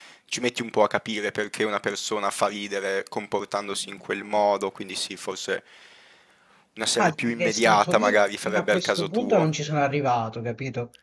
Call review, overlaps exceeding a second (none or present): present